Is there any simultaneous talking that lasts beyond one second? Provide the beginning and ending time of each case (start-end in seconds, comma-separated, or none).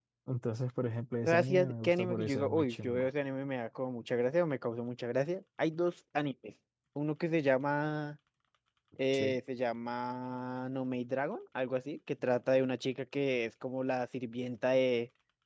1.3-3.1